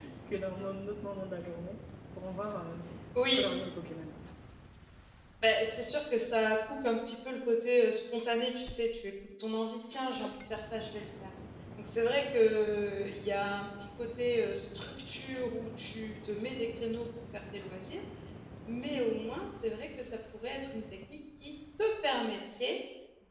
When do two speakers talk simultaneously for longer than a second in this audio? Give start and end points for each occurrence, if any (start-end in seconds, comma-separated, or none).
none